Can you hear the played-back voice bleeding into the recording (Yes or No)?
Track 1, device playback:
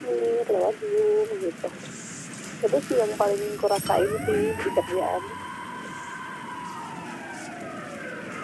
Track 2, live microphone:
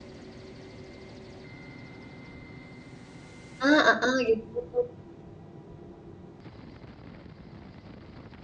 No